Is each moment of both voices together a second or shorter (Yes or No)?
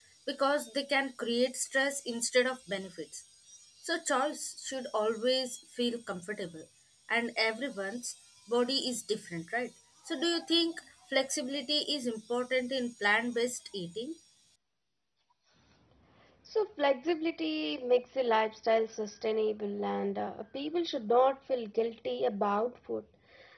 Yes